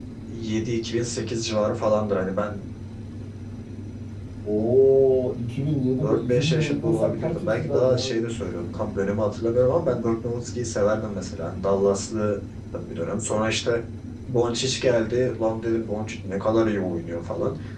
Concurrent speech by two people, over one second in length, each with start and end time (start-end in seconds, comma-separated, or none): 6.0-8.2